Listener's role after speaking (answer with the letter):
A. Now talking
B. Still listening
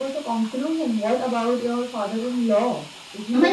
A